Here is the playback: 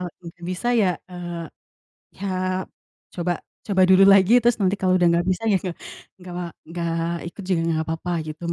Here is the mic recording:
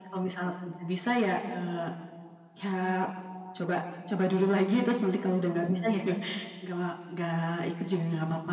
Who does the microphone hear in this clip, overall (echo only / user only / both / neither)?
echo only